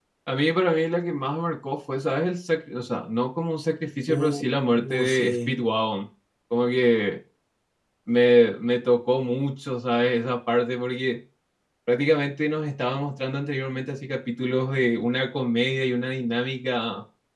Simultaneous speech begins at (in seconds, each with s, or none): 4.1 s